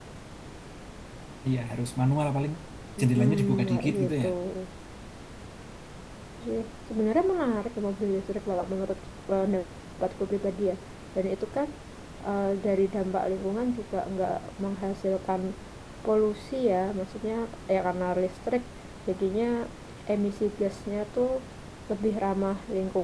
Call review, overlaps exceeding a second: present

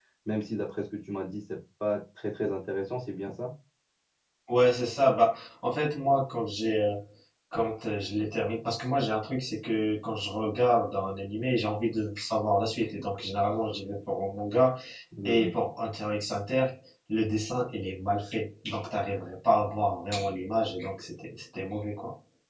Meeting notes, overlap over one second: none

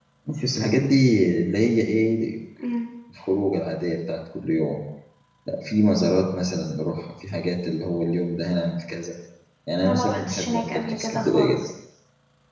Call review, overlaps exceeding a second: present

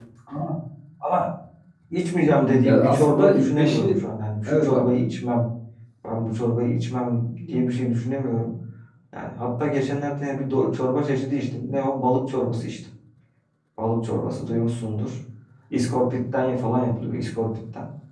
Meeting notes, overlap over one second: present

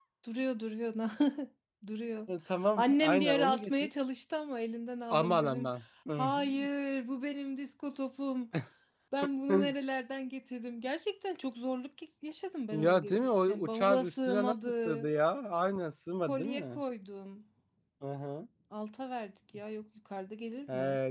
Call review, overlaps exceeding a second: present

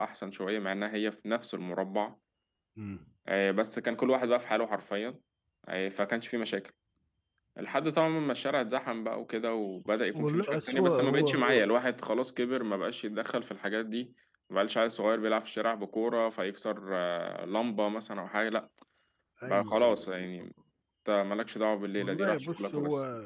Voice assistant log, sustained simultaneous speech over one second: present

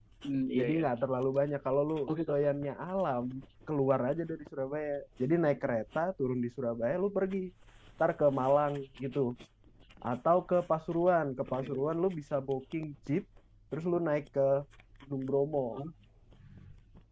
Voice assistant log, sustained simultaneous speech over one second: none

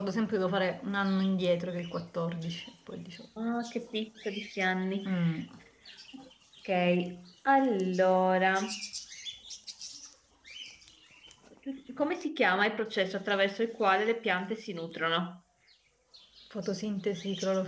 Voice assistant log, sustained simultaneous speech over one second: none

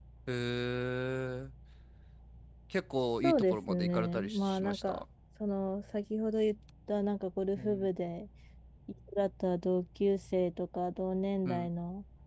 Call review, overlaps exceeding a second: present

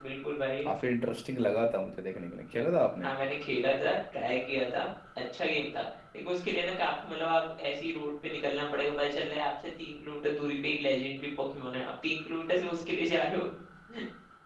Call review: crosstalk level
none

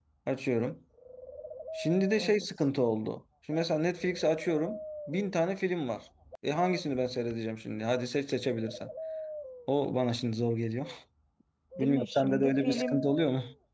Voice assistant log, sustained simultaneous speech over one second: present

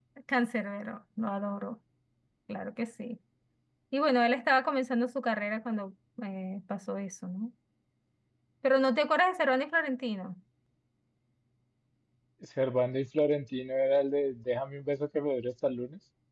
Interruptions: none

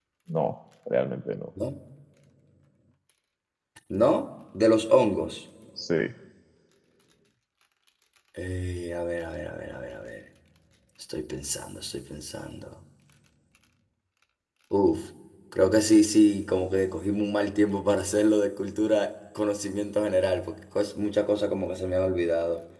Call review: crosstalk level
none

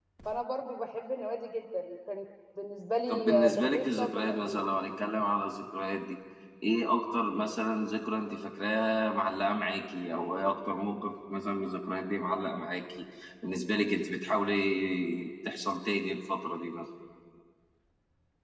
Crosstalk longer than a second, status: present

